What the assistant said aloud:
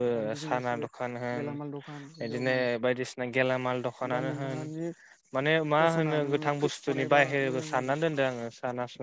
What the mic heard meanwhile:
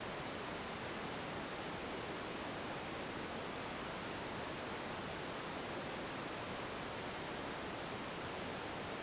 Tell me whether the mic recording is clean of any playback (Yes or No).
Yes